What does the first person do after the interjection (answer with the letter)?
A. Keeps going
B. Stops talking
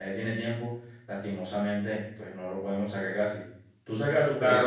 B